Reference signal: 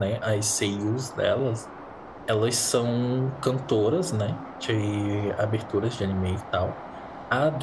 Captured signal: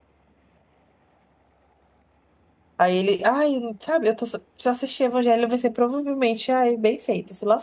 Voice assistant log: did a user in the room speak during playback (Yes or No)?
Yes